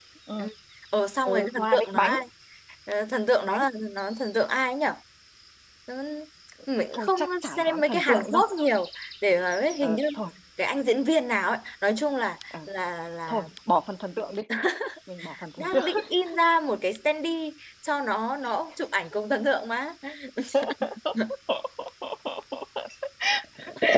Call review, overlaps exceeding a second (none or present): present